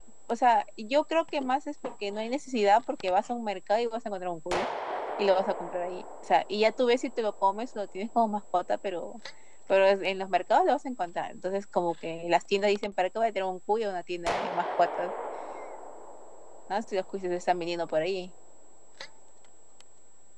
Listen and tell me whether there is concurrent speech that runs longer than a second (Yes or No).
No